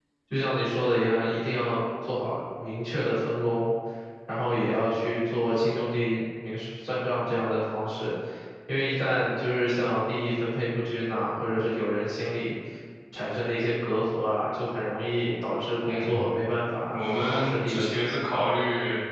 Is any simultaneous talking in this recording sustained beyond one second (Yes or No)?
Yes